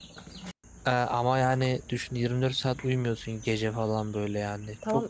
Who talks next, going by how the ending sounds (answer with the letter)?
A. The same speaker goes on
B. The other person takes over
B